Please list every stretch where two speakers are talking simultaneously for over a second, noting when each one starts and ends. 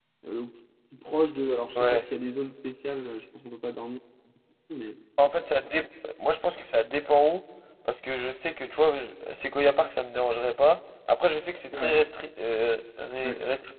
none

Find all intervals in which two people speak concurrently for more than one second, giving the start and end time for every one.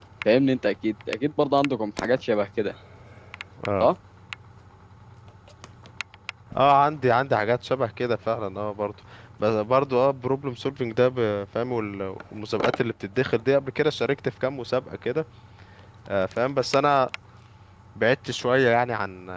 none

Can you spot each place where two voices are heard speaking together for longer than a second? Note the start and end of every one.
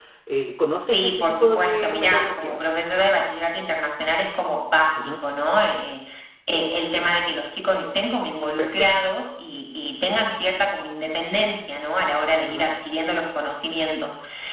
0.9-2.6

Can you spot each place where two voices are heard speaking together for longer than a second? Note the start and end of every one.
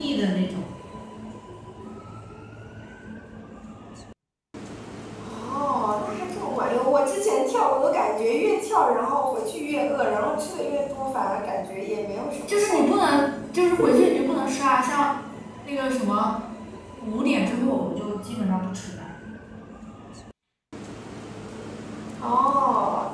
none

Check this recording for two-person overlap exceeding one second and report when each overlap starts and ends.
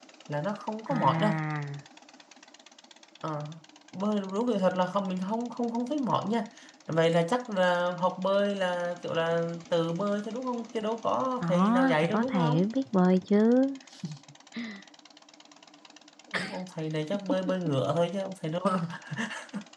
11.4-12.7

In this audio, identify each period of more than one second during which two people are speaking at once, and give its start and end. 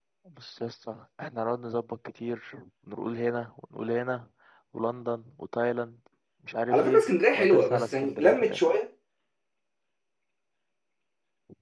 6.7-8.7

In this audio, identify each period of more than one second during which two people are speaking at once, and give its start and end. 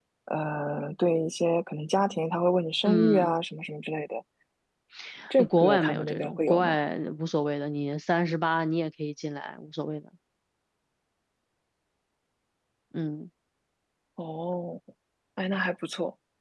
5.6-6.8

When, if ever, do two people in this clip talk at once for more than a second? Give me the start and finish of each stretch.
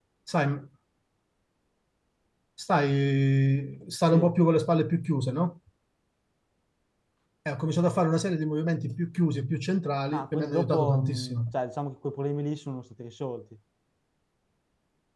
10.1-11.3

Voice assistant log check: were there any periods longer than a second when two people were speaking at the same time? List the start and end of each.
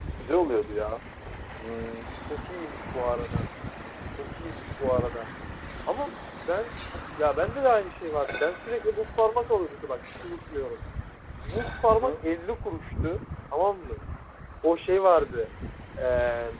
none

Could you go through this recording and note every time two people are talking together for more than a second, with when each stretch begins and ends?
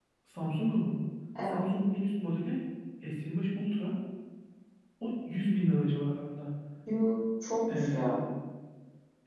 none

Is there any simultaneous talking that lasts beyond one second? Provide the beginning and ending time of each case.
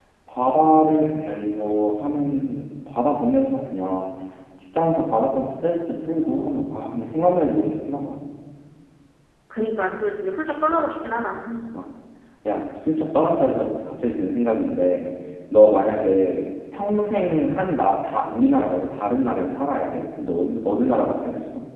none

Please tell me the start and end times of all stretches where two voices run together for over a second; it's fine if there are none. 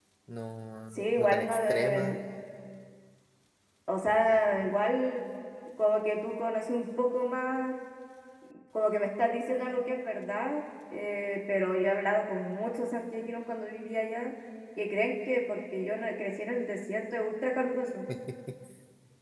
0.9-2.2

